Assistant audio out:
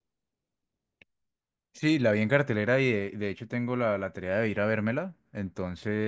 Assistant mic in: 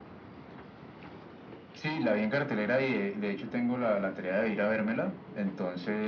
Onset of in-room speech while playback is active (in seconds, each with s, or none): none